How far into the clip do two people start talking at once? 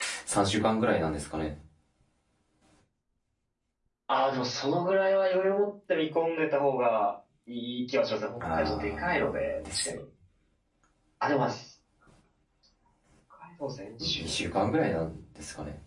9 s

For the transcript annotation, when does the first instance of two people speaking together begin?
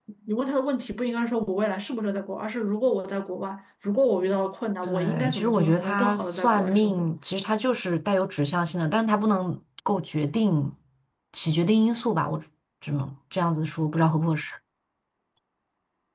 5 s

